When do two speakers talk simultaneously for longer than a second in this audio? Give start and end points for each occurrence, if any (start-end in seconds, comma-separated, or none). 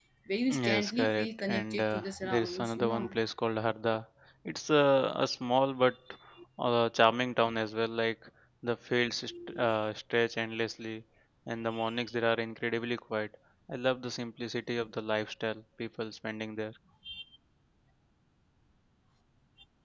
0.5-3.2